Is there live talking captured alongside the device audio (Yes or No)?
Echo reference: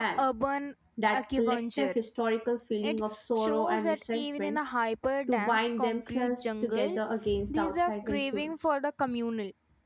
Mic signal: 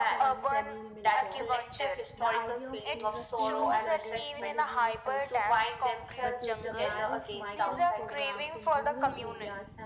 Yes